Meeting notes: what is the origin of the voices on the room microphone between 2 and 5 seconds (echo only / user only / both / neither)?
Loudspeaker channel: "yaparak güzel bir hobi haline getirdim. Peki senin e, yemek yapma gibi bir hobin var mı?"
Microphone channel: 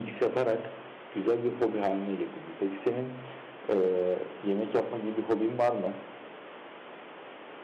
echo only